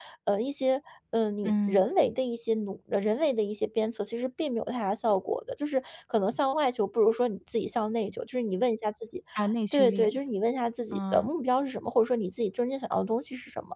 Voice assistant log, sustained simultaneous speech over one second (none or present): none